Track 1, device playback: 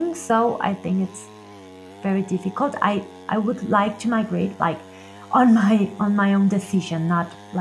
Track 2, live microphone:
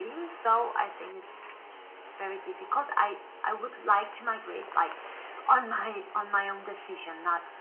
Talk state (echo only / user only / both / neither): echo only